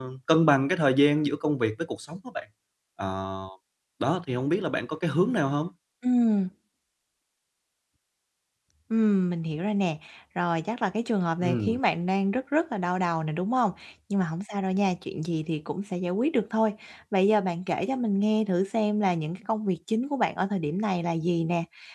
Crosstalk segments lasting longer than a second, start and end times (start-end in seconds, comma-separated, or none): none